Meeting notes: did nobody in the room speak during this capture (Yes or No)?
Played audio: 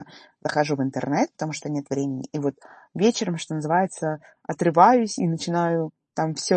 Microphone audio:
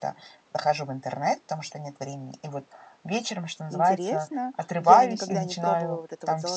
No